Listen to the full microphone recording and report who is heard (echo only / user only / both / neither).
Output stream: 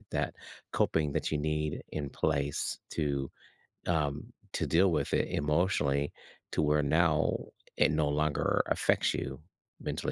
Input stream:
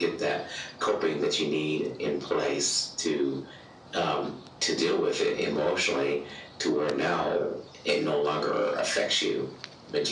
echo only